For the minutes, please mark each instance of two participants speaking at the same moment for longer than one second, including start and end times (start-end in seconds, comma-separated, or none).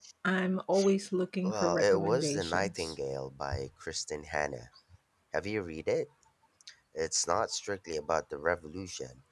1.4-2.9